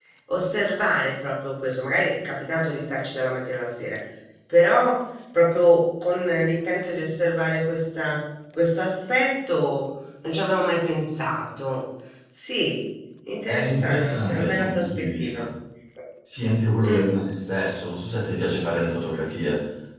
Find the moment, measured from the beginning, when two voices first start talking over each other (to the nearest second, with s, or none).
13 s